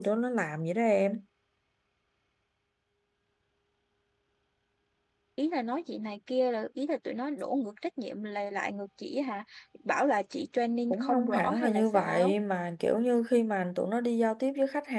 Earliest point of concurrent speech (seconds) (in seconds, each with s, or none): 10.9 s